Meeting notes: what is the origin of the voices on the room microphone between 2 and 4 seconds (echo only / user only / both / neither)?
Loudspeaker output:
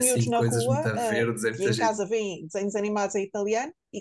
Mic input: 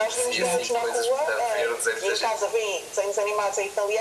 echo only